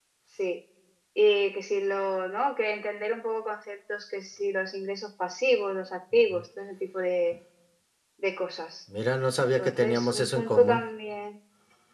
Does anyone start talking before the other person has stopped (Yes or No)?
Yes